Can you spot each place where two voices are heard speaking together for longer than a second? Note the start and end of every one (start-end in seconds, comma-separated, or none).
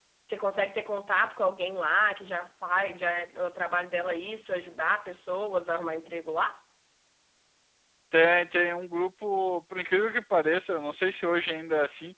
none